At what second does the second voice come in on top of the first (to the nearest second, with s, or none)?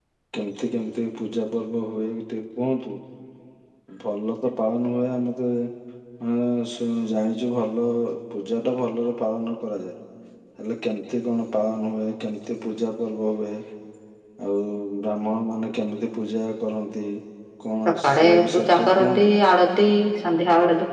18 s